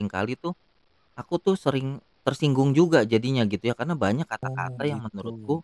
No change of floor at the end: Yes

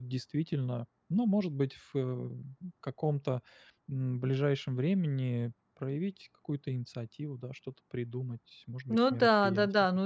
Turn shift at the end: Yes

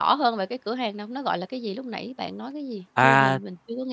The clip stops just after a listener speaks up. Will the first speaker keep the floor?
No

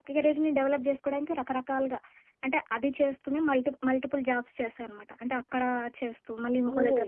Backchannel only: No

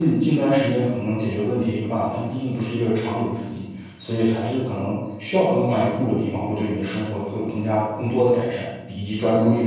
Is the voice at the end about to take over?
Yes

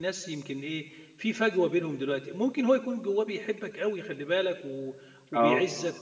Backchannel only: Yes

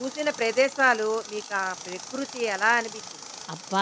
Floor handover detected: Yes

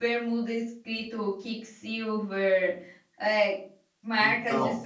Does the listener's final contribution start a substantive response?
Yes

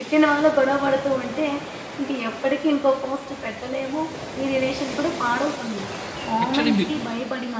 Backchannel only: Yes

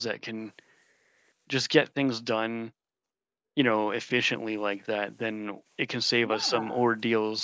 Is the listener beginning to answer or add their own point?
No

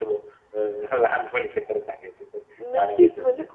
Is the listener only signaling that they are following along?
No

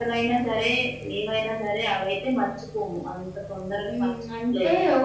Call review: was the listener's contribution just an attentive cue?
No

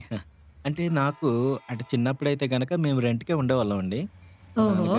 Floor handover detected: No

